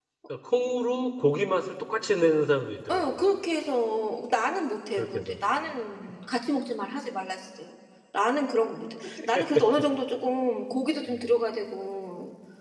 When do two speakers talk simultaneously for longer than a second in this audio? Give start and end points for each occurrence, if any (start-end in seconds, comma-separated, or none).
none